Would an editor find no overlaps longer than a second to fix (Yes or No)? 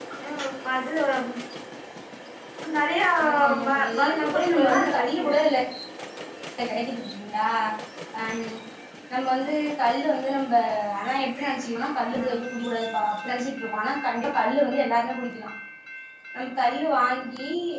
No